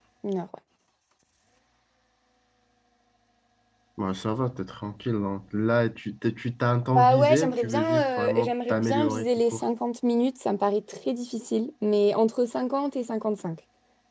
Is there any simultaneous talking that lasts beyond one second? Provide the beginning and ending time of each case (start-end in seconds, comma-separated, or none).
7.0-9.6